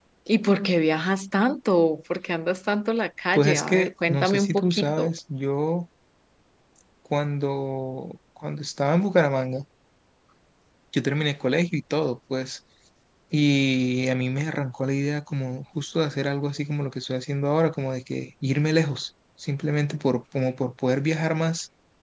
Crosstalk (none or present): present